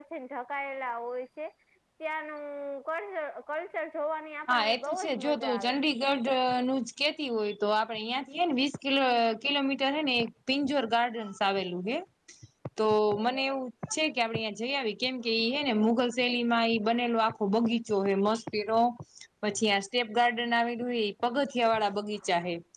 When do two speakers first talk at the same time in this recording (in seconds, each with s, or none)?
4.5 s